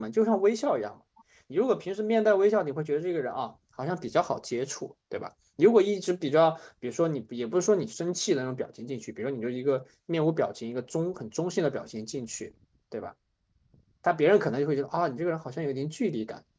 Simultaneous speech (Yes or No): No